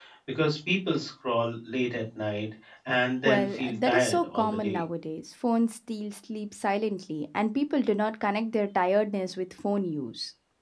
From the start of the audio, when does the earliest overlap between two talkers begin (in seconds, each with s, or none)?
3.2 s